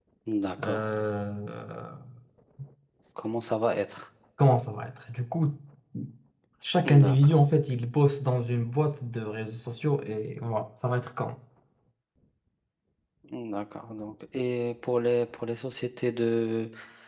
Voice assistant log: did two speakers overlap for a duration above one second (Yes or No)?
No